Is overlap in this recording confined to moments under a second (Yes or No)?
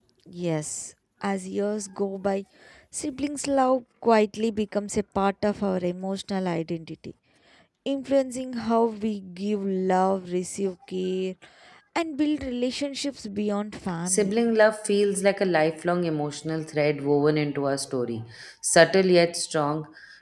Yes